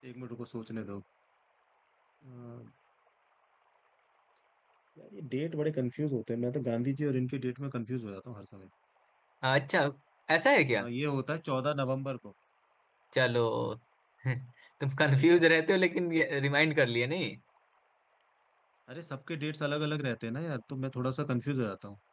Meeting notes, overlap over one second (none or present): none